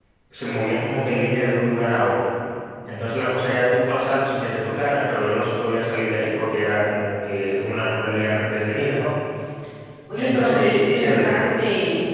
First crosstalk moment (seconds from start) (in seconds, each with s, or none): 10.2 s